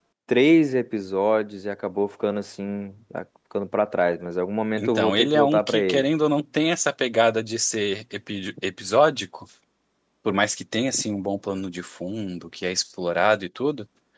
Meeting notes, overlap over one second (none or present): present